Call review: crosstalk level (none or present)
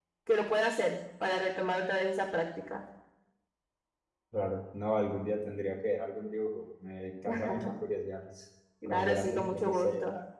present